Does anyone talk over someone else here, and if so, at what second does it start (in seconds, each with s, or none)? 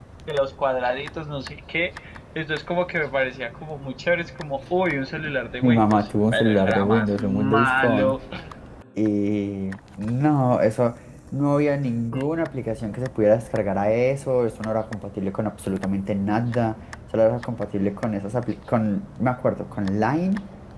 5.6 s